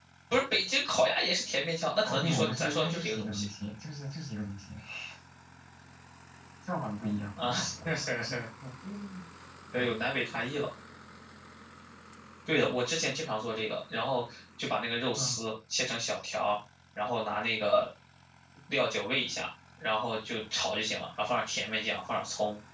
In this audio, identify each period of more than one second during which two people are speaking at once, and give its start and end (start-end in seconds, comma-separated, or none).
2.0-3.4